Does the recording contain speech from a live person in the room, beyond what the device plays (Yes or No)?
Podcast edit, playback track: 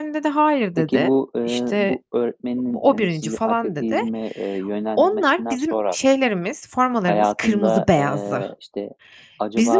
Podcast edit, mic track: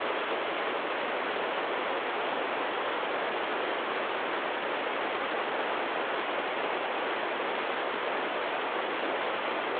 No